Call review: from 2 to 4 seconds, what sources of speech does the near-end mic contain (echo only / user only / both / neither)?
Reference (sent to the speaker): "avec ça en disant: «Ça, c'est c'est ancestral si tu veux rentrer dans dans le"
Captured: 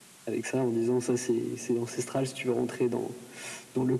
echo only